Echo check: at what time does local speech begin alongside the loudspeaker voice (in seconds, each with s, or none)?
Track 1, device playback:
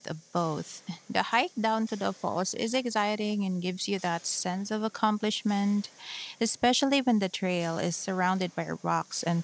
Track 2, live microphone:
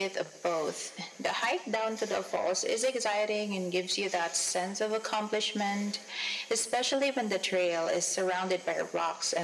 none